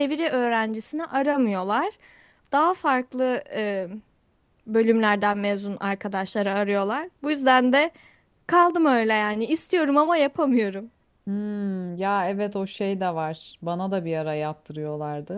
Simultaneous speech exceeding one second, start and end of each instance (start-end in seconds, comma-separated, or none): none